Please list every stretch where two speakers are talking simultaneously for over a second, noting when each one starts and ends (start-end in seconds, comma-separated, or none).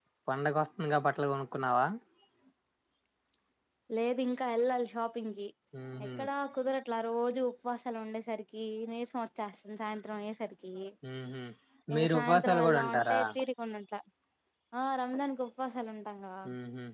12.0-13.2